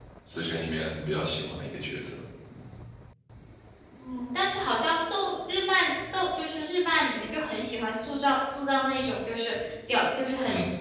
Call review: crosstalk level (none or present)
none